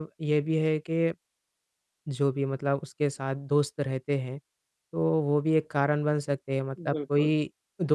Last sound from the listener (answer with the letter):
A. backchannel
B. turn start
A